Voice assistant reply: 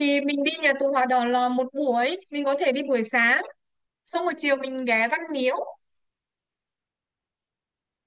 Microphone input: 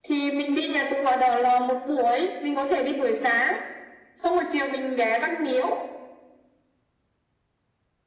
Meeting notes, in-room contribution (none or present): none